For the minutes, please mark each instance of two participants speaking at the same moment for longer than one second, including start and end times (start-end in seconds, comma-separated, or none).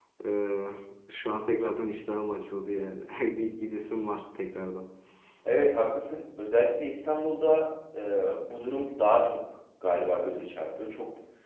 none